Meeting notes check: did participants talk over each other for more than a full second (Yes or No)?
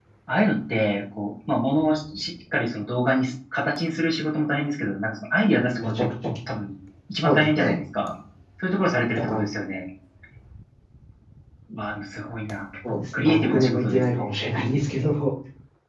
Yes